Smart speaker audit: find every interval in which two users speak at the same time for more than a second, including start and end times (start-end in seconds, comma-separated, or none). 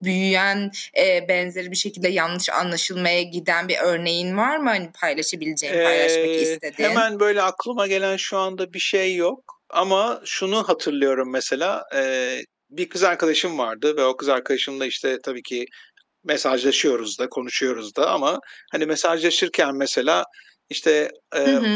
5.6-7.0